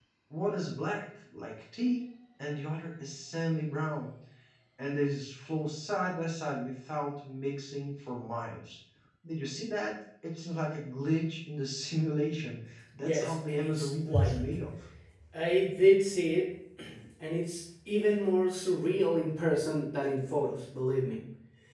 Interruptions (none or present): present